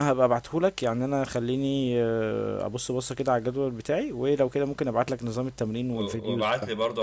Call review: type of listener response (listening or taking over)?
taking over